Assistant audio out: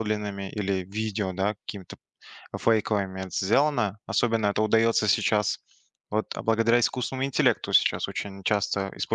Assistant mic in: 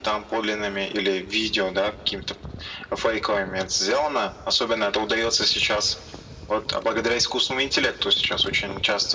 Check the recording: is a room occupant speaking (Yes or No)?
No